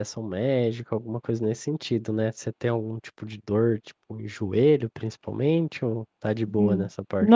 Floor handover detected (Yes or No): Yes